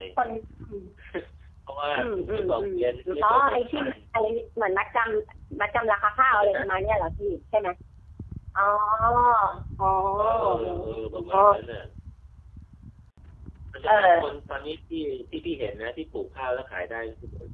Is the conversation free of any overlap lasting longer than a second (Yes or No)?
No